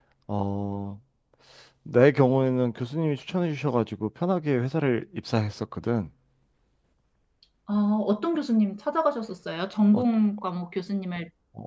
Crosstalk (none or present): none